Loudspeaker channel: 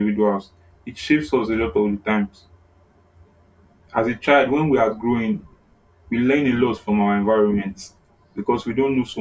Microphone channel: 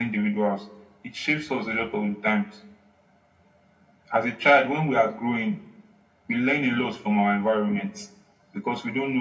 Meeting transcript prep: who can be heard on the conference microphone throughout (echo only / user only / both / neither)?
echo only